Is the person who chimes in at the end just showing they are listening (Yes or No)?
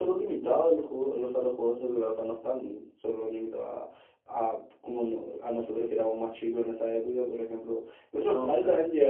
Yes